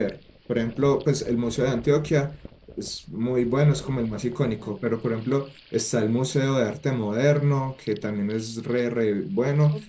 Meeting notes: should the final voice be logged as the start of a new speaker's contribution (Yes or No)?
No